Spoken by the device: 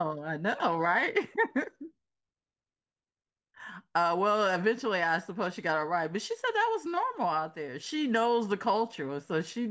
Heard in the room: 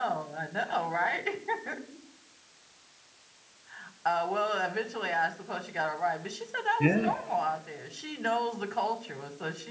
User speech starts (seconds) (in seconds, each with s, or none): 6.8 s